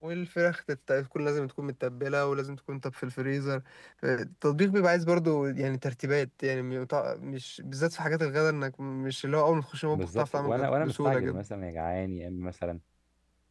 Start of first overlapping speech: 9.9 s

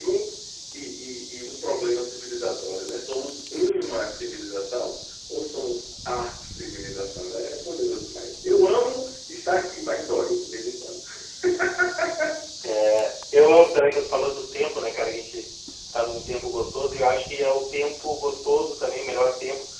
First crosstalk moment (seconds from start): none

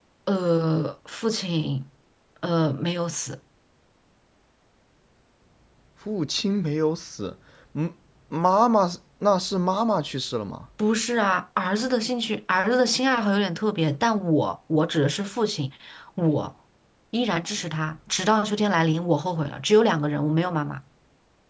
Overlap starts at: none

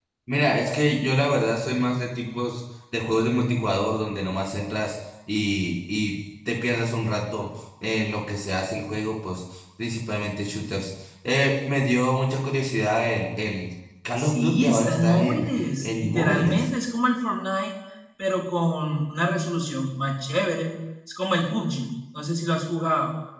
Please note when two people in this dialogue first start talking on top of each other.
14.2 s

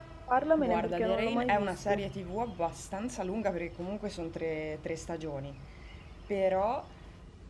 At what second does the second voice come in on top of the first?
0.6 s

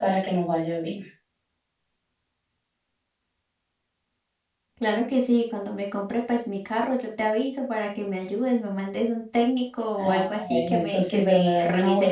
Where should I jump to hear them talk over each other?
10.0 s

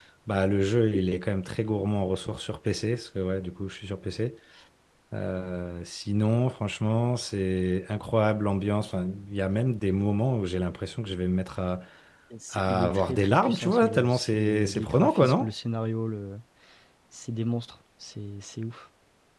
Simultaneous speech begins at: 12.5 s

